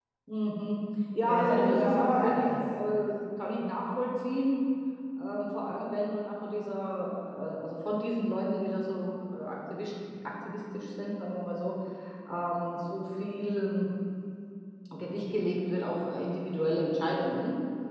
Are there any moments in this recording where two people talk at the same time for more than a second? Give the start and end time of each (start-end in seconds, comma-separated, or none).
1.2-2.6